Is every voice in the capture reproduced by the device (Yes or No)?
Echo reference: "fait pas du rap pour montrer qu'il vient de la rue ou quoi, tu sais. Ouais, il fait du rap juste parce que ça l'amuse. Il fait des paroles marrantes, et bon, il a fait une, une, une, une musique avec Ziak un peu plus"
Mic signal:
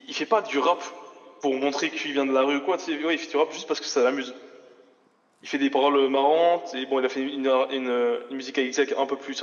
Yes